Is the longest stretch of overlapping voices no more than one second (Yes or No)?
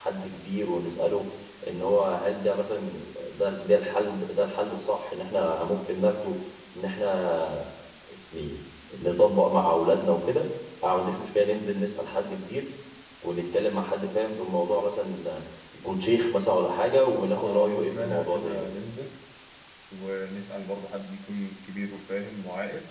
No